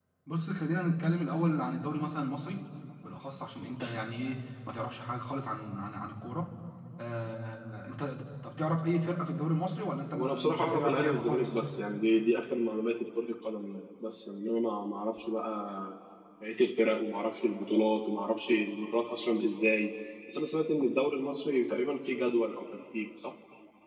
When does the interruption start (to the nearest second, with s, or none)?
10 s